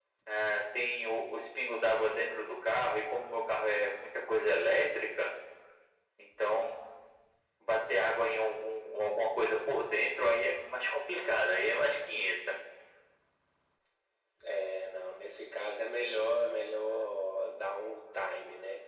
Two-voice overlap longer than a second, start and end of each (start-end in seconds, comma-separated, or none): none